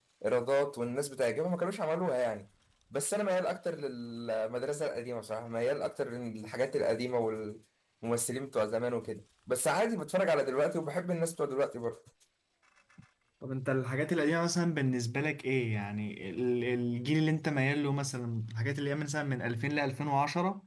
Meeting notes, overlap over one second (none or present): none